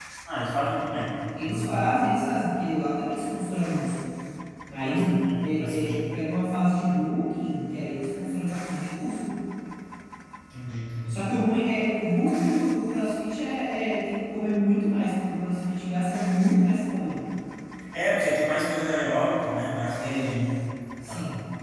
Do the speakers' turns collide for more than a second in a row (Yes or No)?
Yes